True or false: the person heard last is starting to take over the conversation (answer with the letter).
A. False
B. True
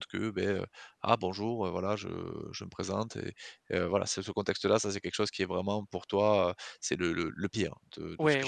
B